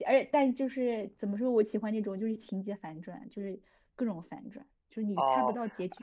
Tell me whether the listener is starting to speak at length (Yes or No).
Yes